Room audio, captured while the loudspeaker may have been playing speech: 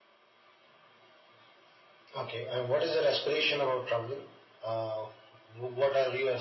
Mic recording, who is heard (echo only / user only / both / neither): echo only